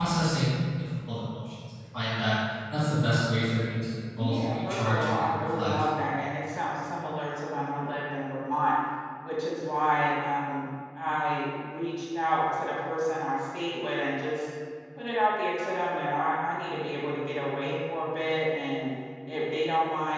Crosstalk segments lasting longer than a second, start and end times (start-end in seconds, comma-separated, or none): 4.2-5.7